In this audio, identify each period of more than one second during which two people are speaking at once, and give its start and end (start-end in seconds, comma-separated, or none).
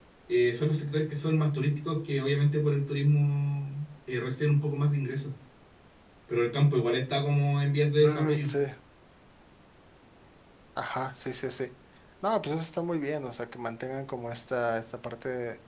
none